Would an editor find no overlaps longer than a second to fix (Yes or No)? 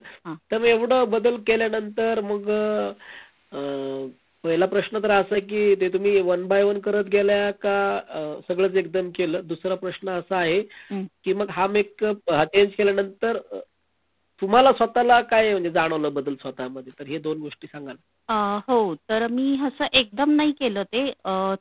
Yes